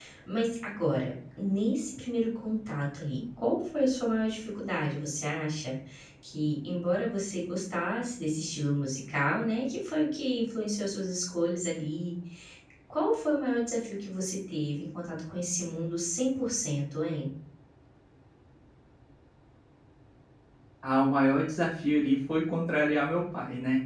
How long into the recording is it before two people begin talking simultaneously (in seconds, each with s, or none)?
none